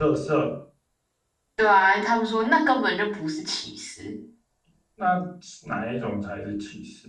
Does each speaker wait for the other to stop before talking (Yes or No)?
Yes